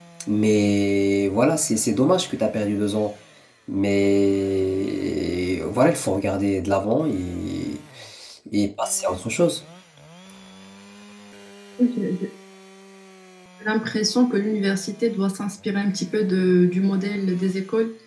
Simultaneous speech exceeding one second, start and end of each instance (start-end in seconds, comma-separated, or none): none